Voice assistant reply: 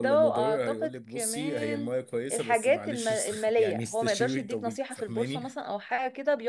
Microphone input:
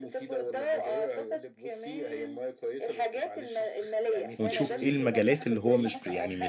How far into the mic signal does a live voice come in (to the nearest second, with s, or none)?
4 s